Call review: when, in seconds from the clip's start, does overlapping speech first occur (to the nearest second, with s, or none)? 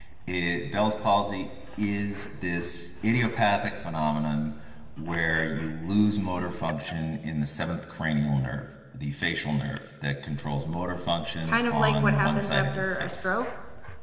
11 s